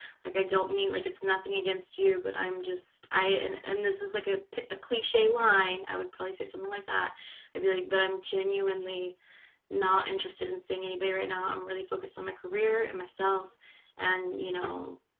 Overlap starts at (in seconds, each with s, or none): none